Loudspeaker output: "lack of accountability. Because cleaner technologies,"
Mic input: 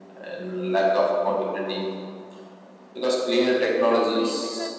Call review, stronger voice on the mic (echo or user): echo